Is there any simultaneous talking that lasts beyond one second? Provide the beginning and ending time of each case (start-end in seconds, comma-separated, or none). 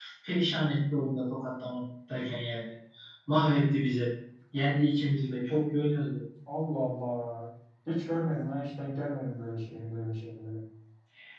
none